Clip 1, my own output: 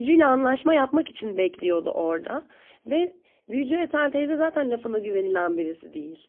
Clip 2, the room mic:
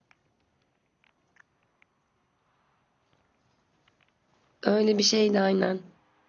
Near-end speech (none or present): present